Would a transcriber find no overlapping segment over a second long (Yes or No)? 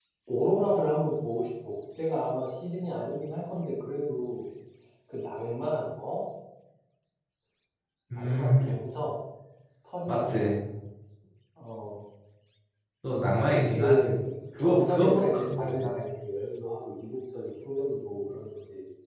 No